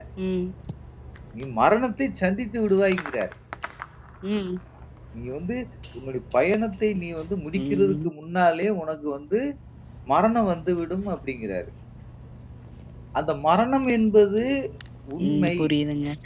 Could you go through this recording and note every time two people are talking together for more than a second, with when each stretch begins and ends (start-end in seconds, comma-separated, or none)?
none